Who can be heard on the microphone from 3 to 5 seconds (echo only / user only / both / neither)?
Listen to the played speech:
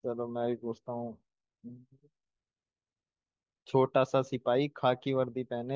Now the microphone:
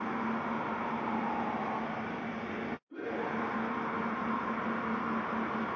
neither